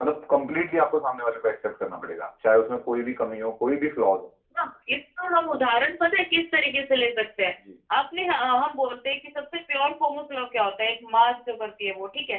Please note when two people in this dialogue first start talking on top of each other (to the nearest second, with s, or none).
none